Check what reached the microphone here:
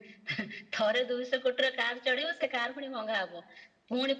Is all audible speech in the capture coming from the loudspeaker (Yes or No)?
Yes